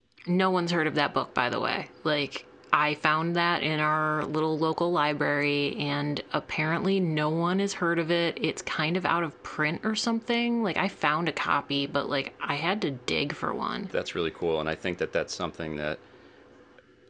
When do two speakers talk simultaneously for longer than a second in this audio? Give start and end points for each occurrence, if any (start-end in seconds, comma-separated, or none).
none